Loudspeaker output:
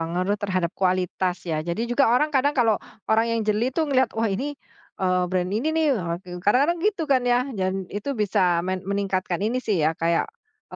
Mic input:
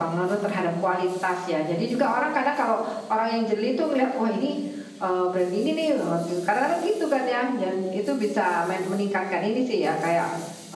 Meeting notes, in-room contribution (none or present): none